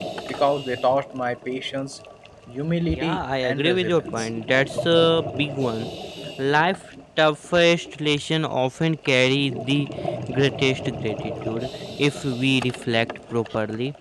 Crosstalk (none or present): present